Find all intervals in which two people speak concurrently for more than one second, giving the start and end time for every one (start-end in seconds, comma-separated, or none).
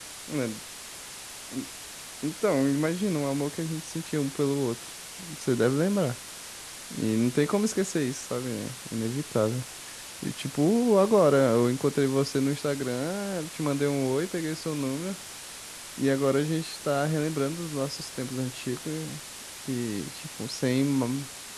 none